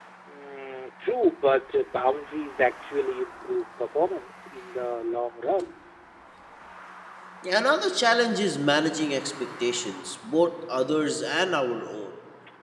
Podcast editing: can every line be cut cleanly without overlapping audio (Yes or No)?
Yes